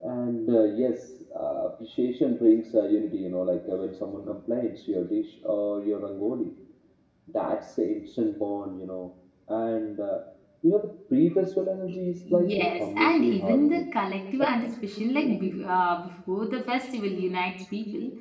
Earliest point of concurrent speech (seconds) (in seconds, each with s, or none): 12.3 s